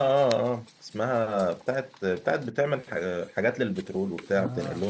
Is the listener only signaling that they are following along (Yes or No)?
No